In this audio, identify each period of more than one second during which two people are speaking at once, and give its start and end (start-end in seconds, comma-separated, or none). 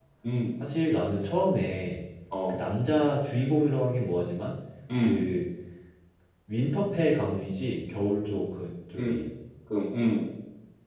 none